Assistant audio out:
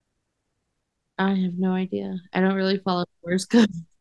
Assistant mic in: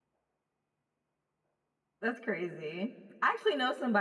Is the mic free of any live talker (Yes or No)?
No